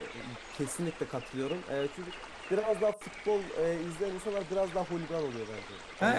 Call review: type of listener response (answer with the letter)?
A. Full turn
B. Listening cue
A